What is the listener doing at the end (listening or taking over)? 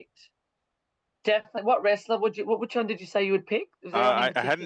taking over